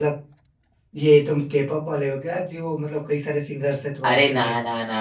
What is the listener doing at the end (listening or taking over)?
taking over